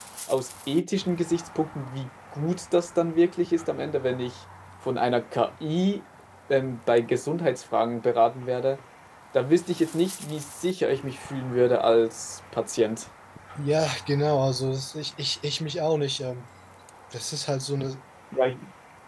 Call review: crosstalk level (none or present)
none